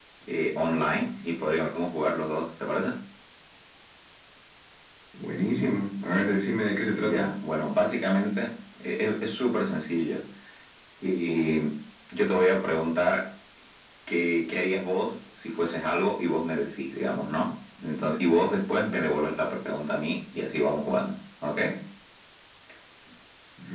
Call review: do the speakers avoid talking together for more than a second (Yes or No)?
Yes